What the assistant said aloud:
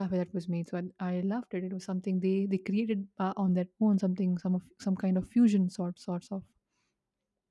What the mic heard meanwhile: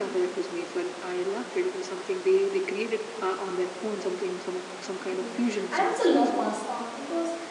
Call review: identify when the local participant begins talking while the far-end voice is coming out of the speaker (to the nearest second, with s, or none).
5 s